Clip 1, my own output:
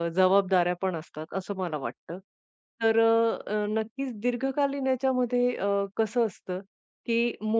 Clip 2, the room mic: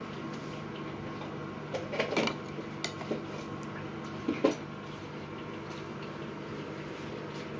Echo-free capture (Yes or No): Yes